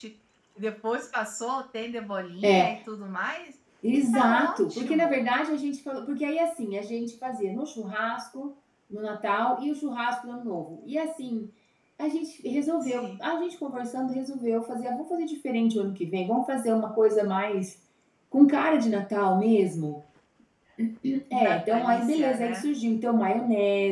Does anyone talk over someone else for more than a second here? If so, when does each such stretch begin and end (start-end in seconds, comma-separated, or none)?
3.9-5.3, 21.4-22.7